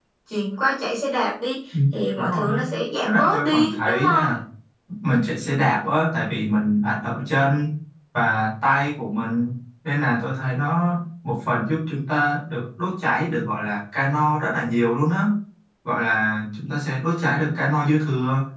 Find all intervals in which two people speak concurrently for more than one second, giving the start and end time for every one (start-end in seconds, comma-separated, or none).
3.0-4.3